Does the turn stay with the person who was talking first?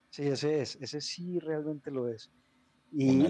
No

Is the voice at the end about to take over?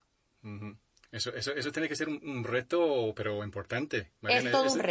Yes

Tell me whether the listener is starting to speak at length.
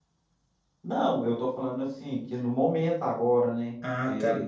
Yes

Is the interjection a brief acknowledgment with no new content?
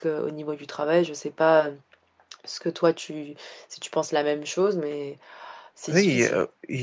No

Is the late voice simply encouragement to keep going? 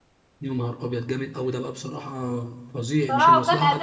No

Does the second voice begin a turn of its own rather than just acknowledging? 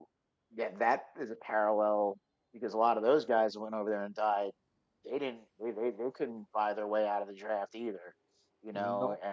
No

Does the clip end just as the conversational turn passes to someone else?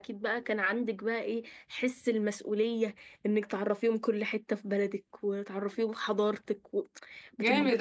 Yes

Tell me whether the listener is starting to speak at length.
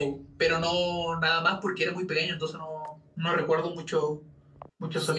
Yes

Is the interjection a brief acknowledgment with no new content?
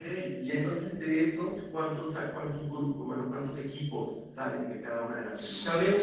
No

